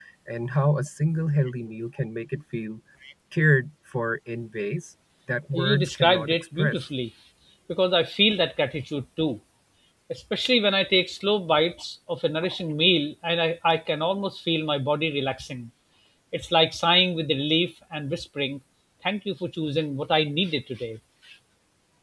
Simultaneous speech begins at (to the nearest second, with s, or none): 6 s